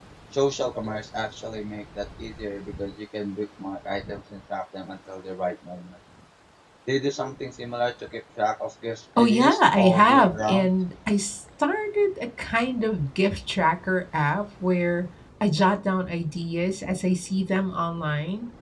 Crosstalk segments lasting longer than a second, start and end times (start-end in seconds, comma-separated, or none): 9.2-10.7